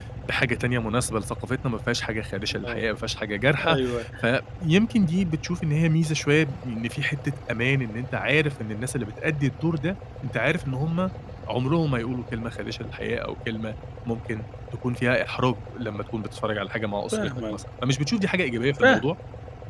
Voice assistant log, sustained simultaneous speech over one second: none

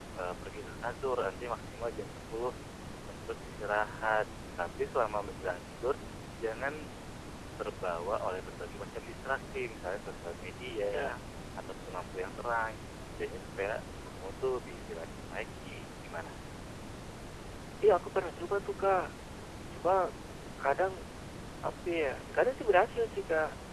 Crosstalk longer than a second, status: none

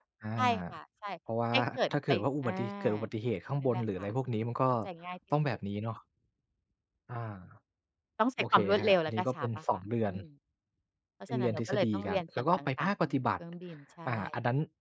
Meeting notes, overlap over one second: present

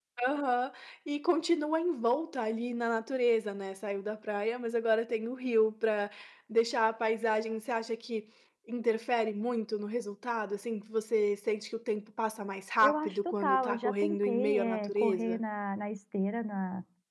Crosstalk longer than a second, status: present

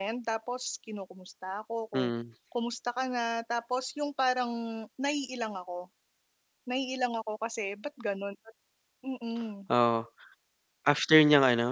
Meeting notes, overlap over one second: none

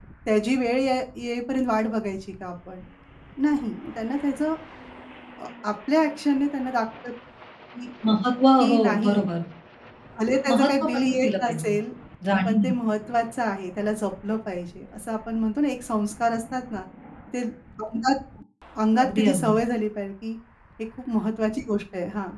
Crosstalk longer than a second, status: present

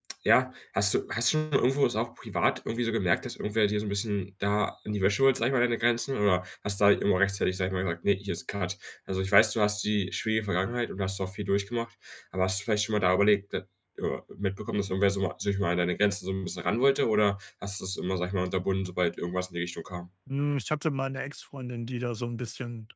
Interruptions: none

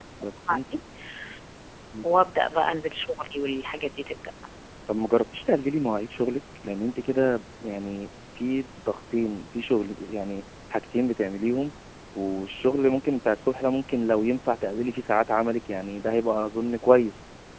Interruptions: none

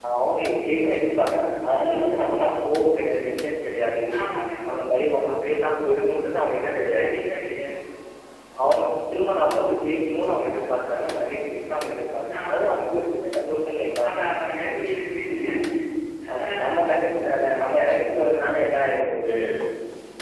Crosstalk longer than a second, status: none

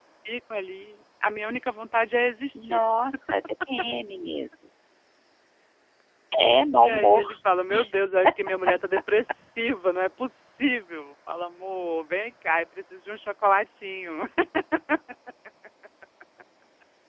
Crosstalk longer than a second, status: none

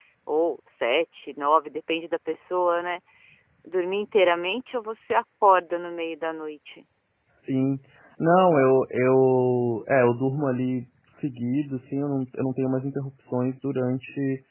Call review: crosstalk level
none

